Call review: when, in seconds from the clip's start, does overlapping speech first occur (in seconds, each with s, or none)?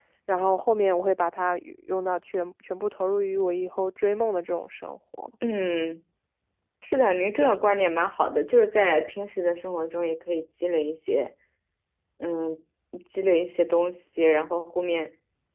none